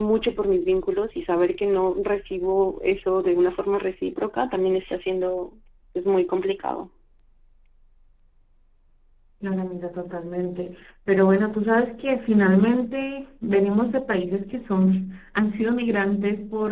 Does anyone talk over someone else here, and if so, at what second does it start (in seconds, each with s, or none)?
none